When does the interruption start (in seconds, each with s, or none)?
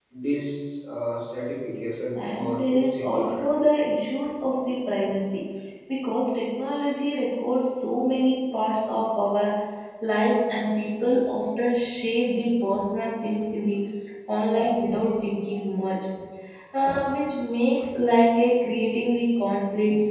2.1 s